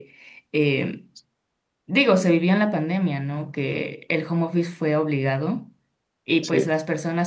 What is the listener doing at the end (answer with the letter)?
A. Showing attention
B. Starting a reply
A